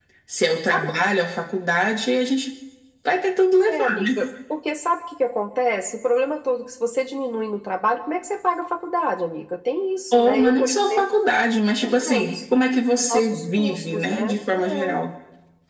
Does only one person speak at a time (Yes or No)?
No